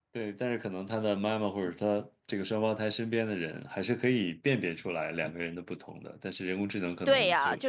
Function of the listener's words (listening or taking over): taking over